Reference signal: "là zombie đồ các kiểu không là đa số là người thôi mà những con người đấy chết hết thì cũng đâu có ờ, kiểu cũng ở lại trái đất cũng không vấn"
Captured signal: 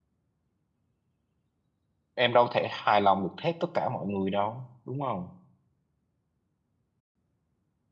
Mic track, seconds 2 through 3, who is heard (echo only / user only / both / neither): user only